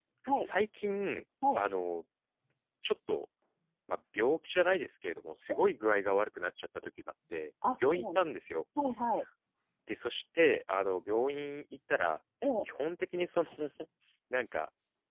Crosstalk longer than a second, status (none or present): none